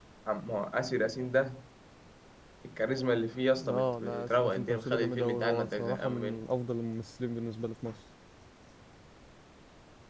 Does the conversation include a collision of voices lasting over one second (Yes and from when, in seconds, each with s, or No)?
Yes, from 3.6 s